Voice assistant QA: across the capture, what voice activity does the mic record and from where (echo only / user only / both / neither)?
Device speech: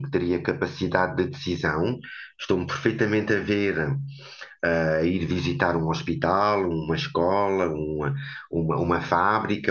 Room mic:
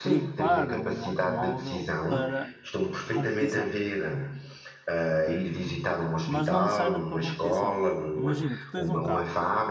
both